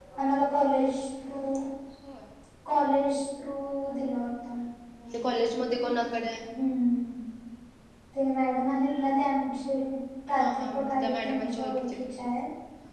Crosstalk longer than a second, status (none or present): present